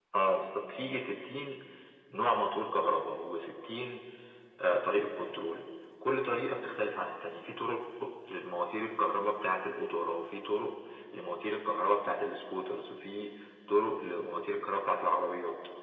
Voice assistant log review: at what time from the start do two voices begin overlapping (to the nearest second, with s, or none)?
none